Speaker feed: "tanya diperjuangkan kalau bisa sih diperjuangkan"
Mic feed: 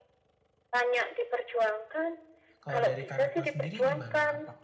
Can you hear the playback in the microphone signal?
Yes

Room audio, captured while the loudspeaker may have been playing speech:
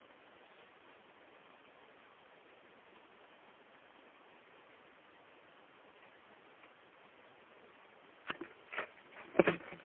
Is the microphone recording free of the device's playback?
Yes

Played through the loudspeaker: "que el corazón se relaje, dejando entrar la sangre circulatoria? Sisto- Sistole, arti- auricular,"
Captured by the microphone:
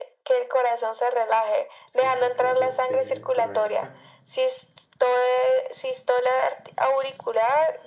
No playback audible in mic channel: No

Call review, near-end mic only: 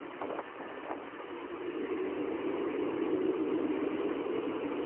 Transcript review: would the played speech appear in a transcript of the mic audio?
No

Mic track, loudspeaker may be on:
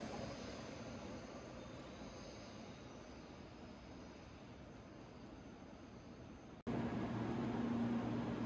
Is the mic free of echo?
Yes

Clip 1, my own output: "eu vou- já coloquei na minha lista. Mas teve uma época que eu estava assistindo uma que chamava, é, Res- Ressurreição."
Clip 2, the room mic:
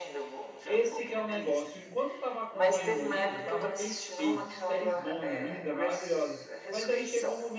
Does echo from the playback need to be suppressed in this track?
Yes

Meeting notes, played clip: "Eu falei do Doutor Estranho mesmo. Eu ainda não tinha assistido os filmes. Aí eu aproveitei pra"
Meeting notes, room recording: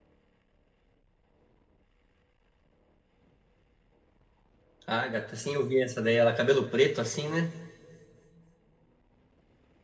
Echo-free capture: Yes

